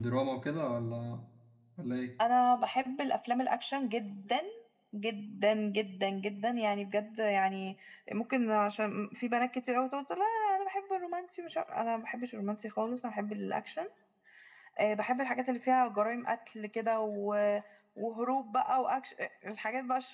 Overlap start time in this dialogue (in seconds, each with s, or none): none